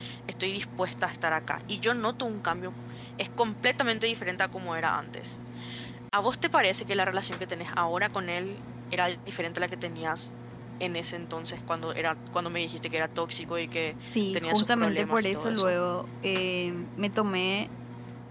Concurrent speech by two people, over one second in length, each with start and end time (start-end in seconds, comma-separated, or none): 14.1-15.7